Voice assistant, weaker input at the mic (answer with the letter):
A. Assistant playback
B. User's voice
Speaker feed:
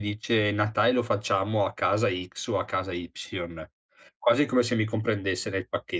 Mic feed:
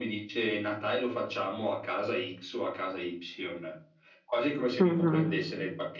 A